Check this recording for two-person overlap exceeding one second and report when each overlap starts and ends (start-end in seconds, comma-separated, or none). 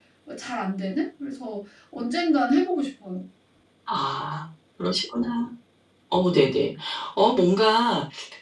none